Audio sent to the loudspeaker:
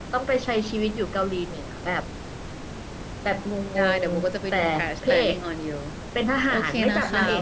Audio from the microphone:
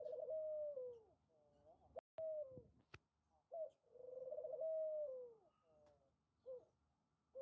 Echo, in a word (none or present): none